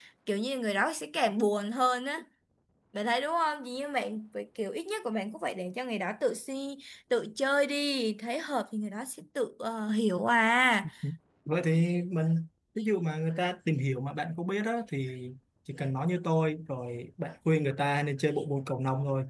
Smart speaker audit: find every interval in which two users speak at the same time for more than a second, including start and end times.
none

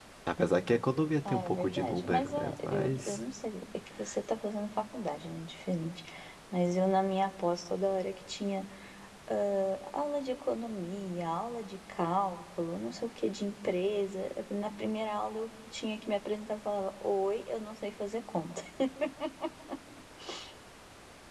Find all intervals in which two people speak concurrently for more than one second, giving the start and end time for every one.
1.3-3.2

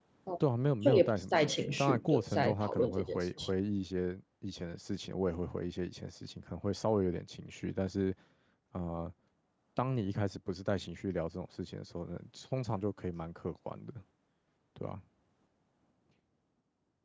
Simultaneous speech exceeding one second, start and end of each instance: 0.8-3.5

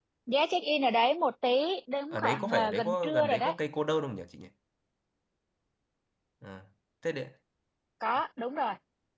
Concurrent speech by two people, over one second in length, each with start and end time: 2.1-3.5

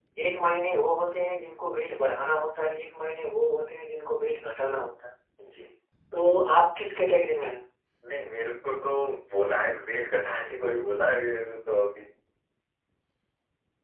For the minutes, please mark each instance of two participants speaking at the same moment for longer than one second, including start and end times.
none

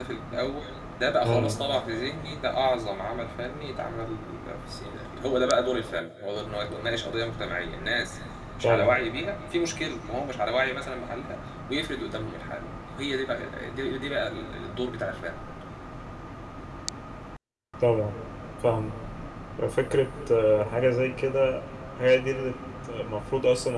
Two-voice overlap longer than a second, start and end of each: none

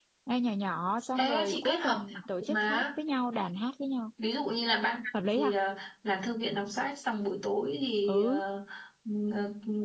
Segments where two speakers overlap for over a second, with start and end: 1.3-2.8

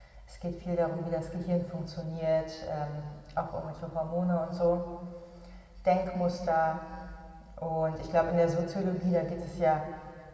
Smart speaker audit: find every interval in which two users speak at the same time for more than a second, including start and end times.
none

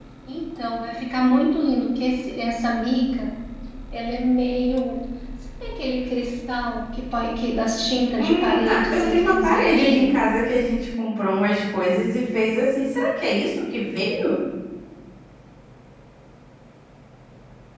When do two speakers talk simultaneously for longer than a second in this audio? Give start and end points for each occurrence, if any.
8.2-10.2

